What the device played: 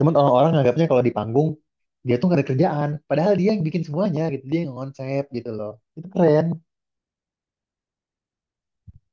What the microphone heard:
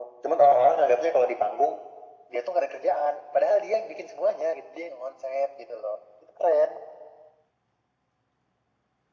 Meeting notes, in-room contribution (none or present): none